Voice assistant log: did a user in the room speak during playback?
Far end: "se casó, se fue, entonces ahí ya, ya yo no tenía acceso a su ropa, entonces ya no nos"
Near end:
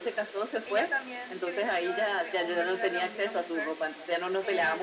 Yes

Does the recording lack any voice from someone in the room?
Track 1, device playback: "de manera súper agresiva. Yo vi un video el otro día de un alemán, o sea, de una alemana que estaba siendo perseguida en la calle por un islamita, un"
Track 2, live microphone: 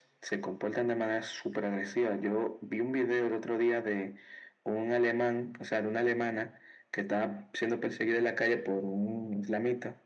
Yes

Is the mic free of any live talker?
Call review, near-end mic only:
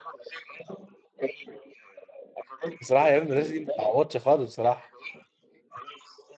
No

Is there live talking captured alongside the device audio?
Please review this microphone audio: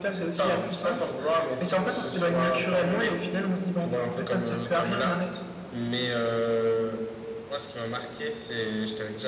No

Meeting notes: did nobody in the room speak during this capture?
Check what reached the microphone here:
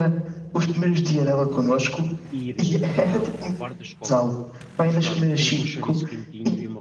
No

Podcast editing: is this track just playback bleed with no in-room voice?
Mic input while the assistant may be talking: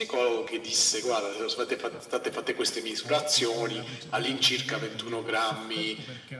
No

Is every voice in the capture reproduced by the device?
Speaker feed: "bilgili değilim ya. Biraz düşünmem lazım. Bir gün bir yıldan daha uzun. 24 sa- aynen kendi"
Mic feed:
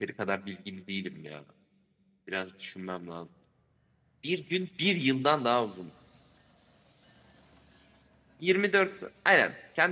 Yes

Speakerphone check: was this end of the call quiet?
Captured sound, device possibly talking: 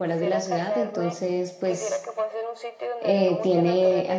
No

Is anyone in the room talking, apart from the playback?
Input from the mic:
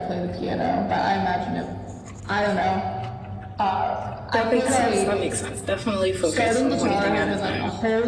Yes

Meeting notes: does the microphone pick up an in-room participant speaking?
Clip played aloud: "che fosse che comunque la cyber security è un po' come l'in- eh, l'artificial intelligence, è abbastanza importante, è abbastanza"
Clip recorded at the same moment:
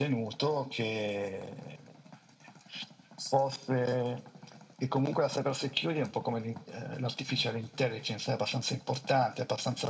No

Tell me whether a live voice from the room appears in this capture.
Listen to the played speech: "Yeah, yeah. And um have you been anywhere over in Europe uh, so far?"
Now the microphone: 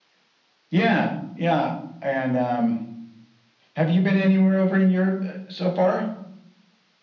No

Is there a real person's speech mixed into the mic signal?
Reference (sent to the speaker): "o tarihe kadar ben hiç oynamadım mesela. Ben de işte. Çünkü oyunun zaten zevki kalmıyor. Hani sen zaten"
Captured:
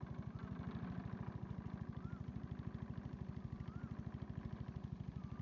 No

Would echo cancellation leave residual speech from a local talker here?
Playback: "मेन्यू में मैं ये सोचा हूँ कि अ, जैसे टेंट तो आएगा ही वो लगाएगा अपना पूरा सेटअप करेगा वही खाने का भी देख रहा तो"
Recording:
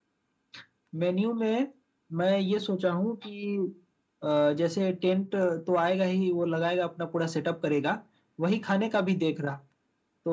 No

